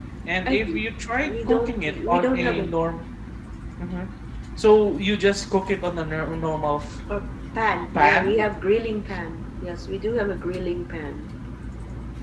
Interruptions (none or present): present